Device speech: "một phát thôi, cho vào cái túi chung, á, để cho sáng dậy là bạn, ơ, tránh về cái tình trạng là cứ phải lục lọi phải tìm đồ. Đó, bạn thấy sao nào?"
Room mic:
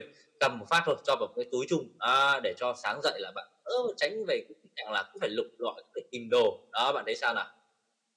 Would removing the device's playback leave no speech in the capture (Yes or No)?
Yes